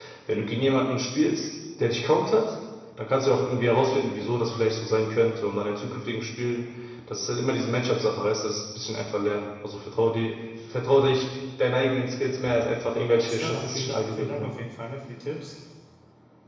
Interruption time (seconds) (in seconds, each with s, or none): 13.2 s